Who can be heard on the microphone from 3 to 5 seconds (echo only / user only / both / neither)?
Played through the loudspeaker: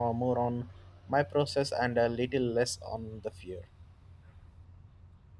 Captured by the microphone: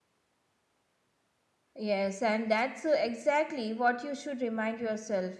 user only